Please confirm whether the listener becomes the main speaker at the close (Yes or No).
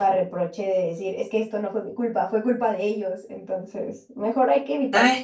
Yes